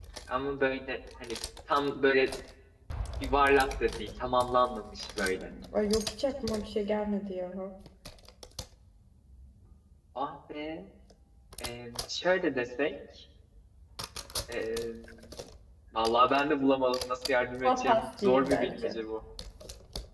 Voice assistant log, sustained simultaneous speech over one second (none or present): present